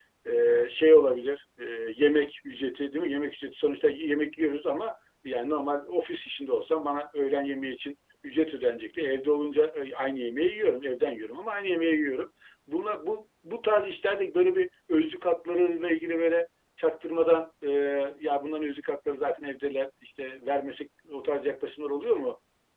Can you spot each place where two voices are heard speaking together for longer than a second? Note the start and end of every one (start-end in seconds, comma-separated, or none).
none